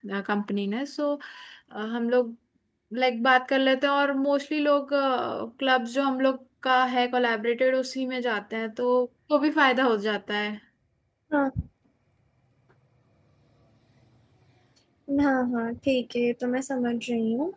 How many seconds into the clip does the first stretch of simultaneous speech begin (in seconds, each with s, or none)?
none